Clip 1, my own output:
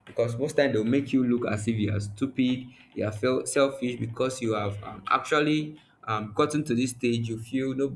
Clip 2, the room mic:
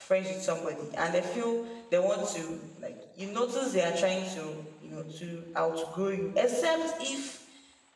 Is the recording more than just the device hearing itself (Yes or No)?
Yes